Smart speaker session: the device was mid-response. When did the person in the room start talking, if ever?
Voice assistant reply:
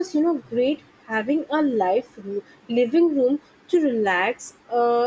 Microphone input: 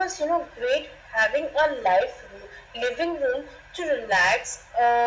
none

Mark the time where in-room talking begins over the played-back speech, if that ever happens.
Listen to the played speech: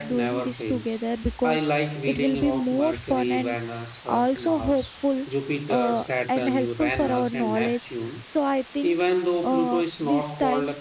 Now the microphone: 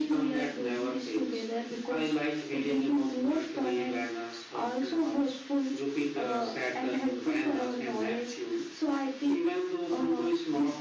none

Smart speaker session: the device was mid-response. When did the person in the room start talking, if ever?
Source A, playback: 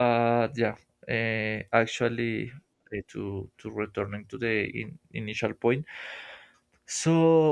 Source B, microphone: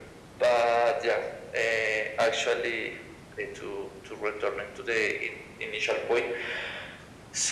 none

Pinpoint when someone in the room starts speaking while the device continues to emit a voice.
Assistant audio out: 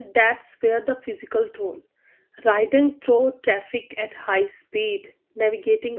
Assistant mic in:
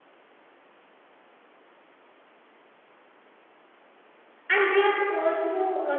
4 s

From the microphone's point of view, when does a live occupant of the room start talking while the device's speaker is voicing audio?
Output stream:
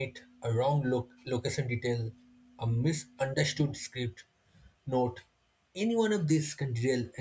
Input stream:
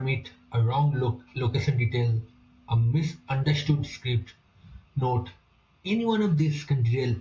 none

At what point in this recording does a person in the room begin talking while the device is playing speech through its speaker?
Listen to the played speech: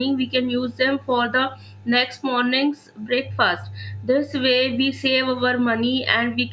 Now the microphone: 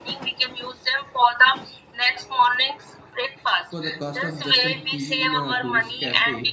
4 s

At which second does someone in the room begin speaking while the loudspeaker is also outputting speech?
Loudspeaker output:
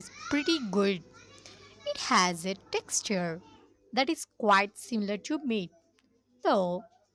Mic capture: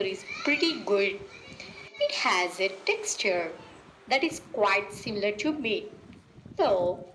none

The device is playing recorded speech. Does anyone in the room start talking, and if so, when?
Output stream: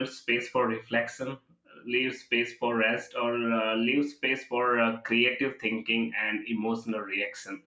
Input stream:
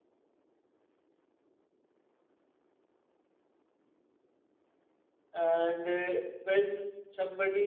5 s

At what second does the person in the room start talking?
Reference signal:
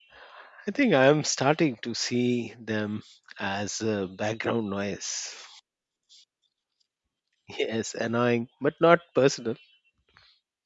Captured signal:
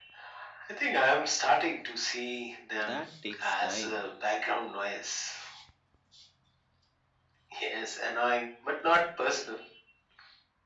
3 s

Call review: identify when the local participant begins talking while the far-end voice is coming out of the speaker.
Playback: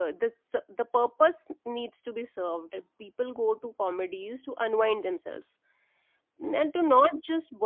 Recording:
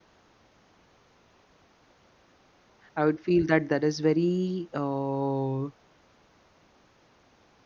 3 s

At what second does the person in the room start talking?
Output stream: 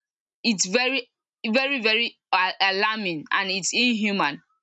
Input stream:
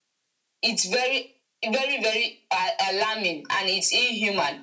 none

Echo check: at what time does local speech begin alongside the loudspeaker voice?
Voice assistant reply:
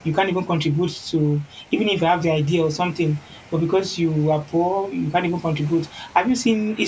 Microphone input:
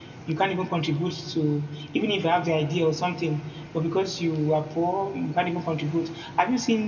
none

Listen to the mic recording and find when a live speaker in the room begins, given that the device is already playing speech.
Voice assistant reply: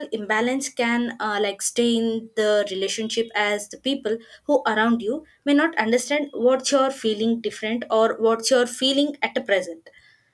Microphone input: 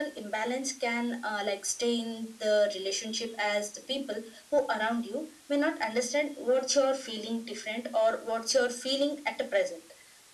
none

